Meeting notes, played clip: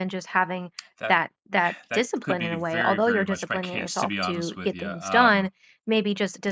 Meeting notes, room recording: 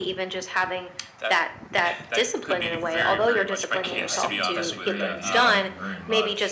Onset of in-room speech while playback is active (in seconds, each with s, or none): 3.7 s